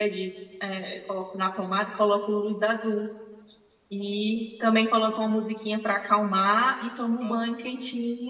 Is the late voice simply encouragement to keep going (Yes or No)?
Yes